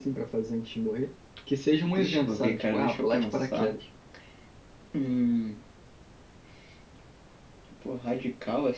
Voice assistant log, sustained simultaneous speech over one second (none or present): present